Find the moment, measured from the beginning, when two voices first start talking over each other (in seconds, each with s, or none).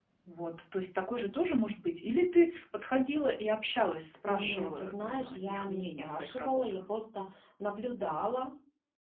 4.2 s